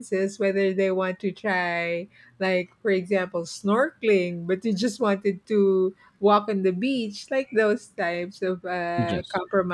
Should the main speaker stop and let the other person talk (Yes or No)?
No